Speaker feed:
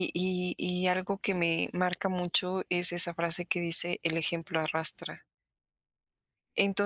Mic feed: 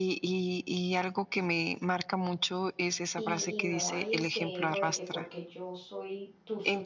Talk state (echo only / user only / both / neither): both